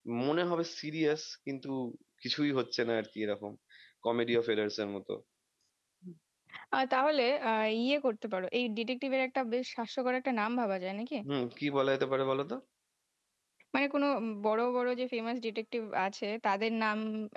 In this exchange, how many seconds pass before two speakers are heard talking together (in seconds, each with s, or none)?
none